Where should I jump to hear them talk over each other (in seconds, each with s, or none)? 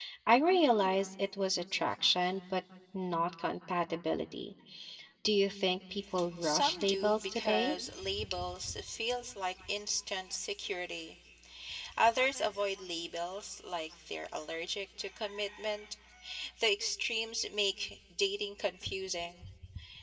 6.4 s